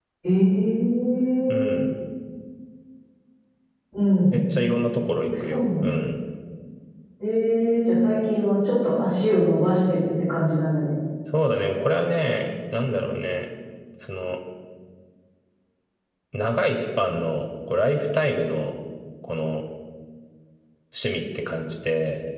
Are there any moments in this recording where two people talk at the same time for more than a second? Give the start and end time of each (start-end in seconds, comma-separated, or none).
none